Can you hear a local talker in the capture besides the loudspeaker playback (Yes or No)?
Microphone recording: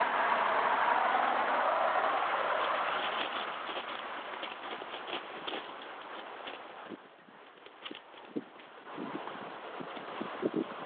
No